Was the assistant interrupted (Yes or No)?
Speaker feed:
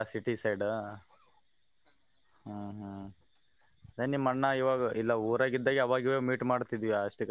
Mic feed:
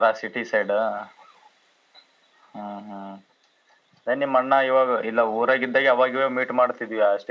No